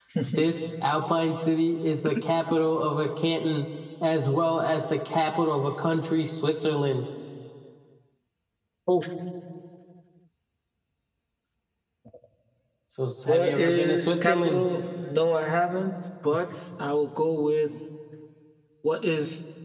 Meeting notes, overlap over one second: present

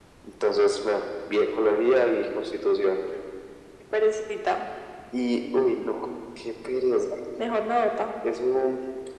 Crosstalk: none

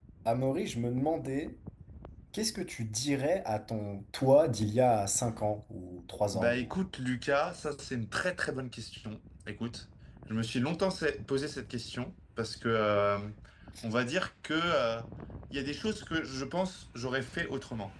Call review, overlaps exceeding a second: none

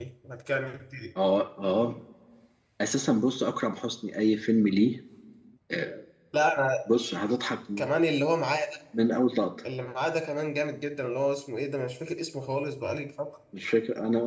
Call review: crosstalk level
none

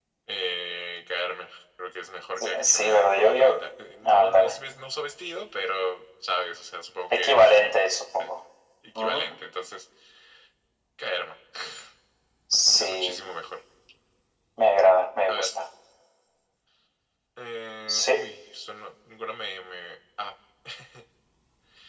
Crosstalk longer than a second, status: present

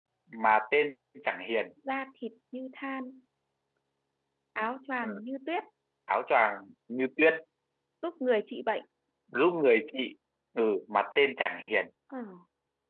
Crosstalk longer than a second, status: none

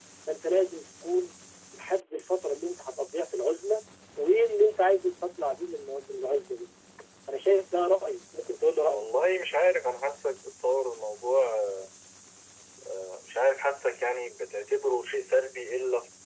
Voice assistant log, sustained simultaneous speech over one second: none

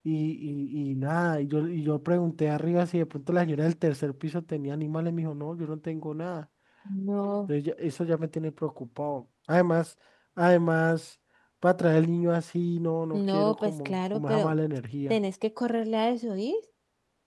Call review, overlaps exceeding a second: present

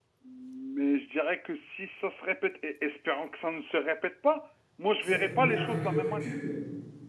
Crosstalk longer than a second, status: present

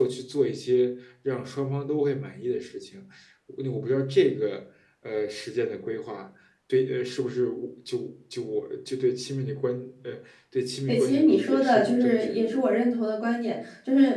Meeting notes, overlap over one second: present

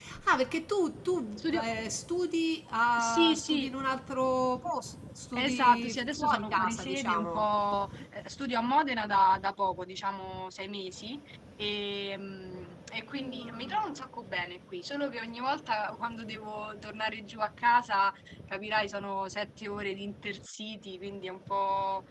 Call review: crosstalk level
present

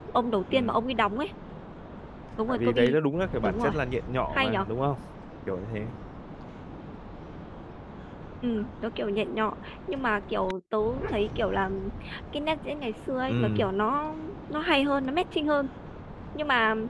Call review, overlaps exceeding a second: none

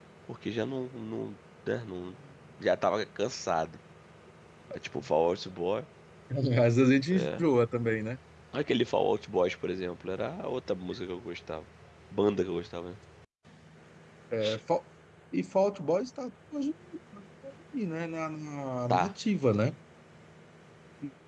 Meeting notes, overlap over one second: none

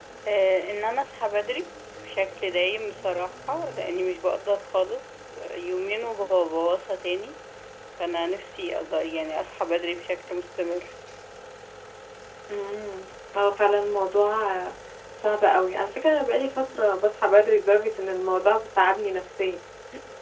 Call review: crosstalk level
none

